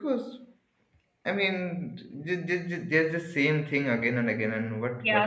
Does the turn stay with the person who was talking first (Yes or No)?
No